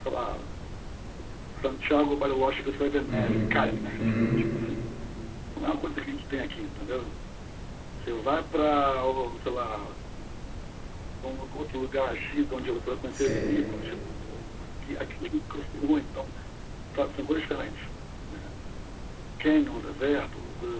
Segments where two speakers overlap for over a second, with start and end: none

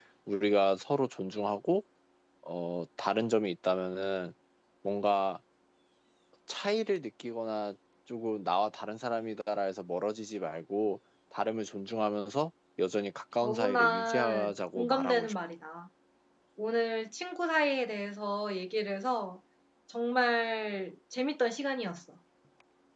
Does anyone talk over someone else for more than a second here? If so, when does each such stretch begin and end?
13.4-15.3

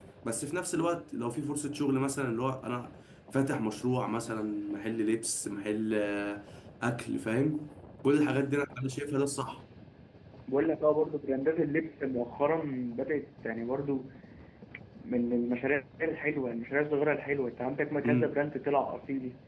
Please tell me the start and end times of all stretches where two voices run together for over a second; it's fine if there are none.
none

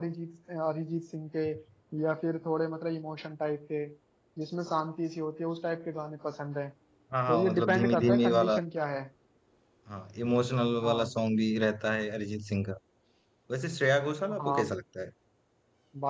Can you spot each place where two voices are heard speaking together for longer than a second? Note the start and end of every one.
7.3-8.6

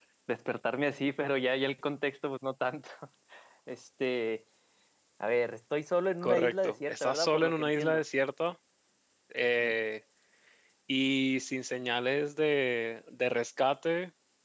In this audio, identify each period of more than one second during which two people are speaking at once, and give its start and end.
6.2-8.0

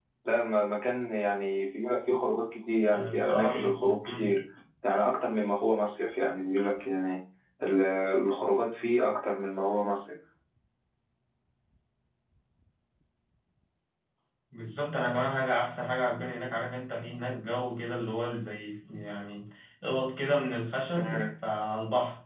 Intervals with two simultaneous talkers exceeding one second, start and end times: 2.9-4.3

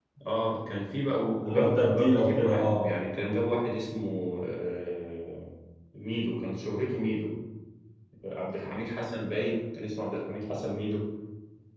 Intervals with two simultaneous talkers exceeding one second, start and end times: 1.5-2.9

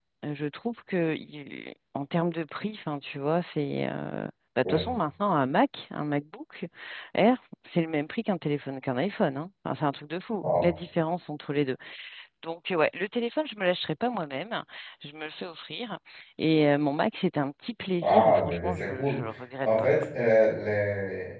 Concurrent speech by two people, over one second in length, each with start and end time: 18.0-19.2

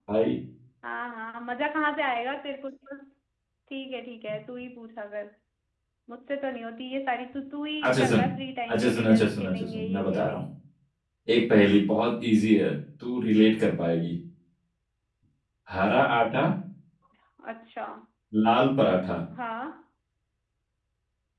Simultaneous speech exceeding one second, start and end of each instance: 8.7-10.4

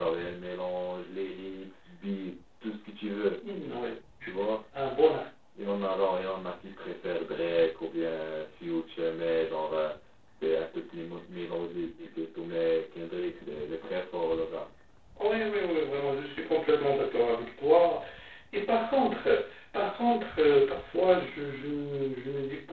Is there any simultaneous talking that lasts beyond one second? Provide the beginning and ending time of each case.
none

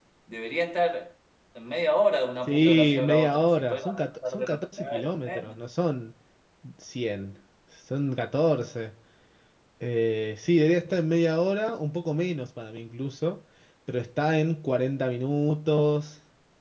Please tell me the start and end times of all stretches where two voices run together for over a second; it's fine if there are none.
2.5-5.6

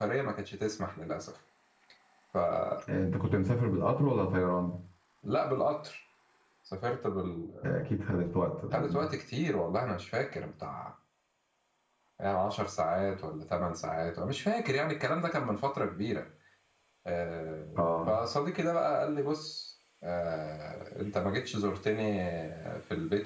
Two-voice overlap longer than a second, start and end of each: none

